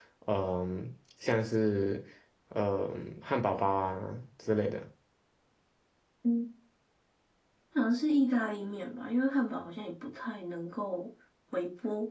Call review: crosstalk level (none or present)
none